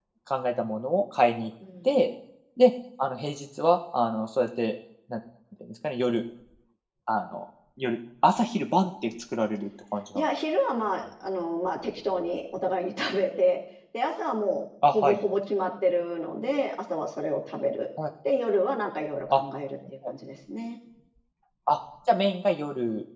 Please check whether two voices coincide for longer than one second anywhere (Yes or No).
No